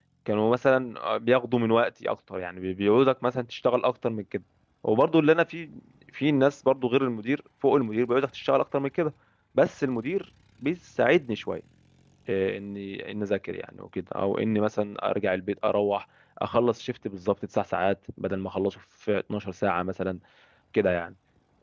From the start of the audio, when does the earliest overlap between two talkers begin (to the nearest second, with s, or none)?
none